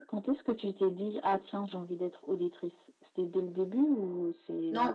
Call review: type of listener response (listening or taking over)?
taking over